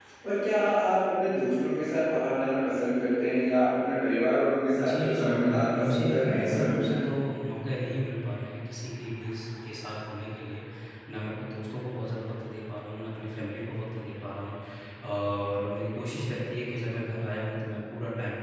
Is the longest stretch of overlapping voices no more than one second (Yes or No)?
No